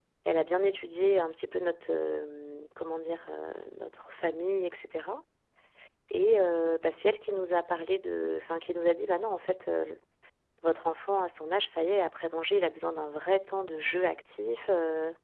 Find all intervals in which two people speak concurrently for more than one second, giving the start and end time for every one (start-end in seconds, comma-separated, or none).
none